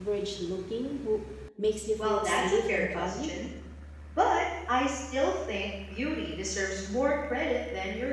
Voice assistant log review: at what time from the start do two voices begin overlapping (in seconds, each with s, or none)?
2.0 s